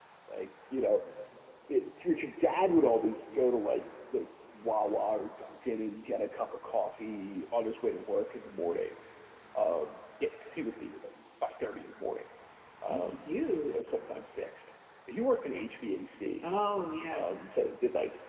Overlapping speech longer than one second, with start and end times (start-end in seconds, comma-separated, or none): none